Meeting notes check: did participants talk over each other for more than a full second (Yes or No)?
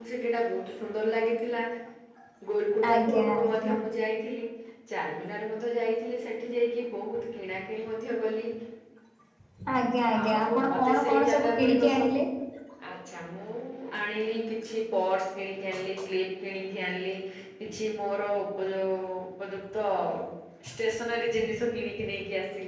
Yes